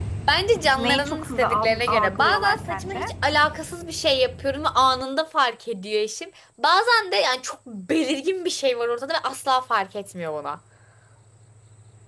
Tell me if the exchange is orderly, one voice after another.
No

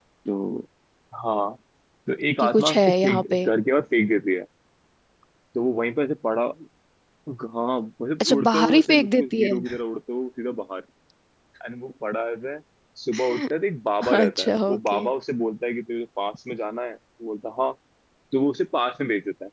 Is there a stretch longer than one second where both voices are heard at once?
Yes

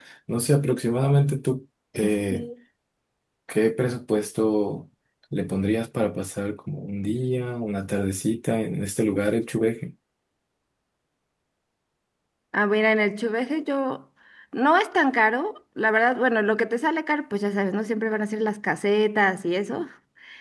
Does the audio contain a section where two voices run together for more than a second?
No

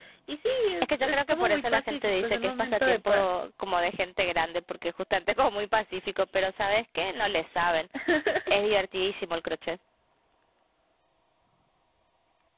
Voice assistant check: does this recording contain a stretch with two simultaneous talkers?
Yes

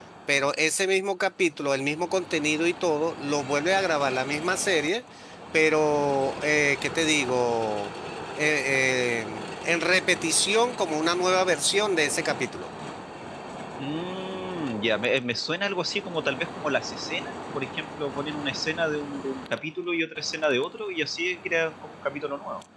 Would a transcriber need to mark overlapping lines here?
No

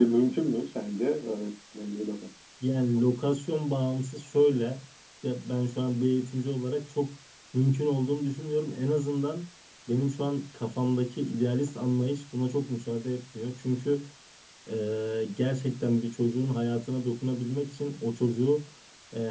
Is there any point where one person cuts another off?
No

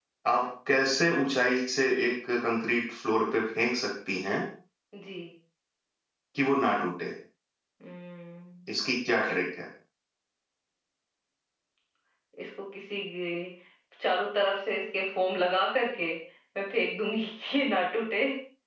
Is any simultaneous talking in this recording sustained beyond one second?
No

